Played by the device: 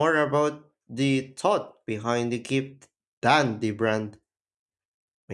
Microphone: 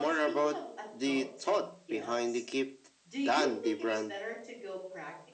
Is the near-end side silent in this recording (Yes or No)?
No